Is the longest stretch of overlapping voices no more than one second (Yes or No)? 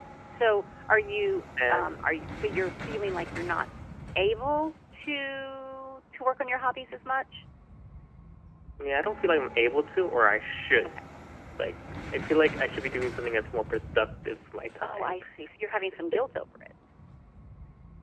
Yes